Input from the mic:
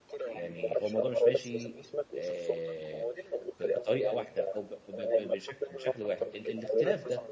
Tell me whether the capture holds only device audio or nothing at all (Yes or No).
No